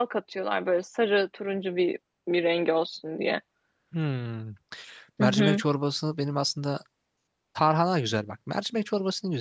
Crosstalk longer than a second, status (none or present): none